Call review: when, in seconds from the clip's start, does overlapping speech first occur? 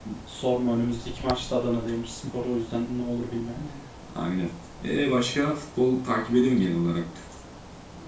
none

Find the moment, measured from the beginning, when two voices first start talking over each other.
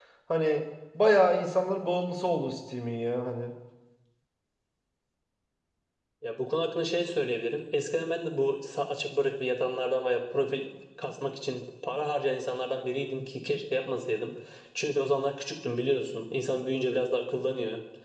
none

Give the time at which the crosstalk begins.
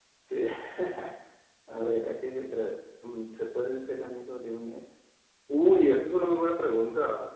none

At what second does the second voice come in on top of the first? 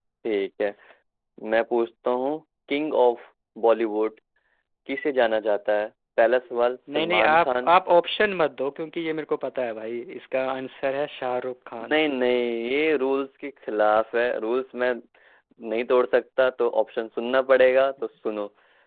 6.5 s

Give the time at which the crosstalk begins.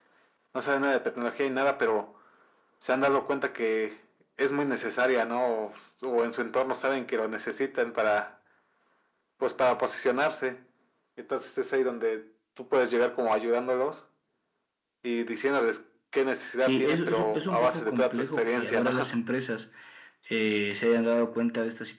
16.6 s

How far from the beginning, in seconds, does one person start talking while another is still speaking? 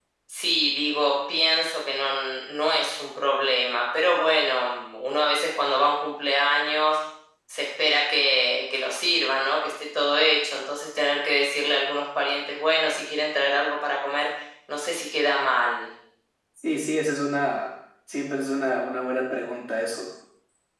none

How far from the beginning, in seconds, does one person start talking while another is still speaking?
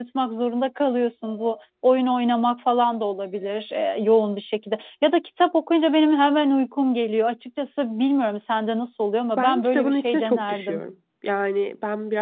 9.4 s

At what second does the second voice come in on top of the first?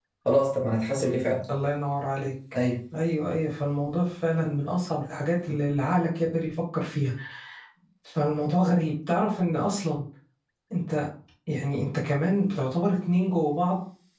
none

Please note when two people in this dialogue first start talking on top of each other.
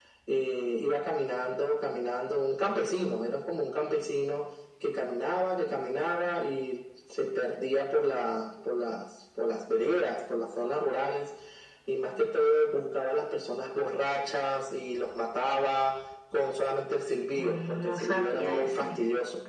17.4 s

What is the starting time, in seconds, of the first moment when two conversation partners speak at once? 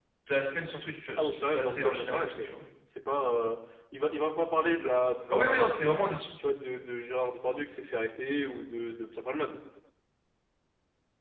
1.2 s

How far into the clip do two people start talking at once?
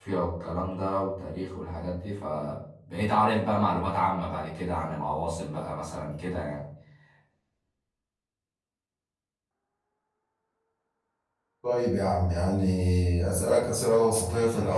none

